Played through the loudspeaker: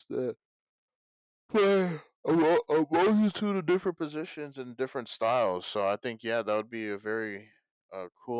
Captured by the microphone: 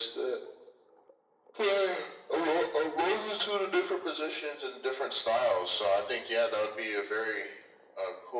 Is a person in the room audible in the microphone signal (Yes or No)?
No